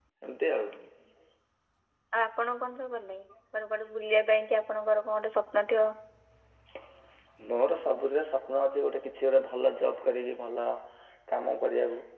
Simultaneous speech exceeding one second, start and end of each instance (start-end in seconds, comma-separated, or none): none